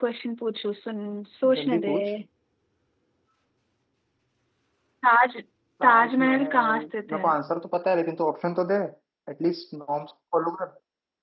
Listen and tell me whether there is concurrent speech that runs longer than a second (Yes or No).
Yes